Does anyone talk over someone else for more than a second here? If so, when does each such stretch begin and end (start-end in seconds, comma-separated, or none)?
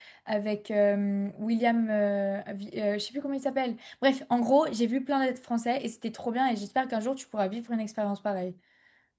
none